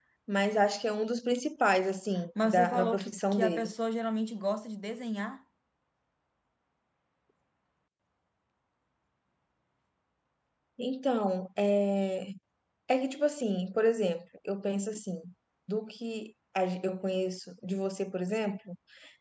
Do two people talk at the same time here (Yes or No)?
Yes